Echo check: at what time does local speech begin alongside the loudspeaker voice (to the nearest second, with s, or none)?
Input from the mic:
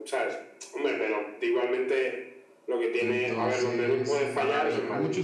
3 s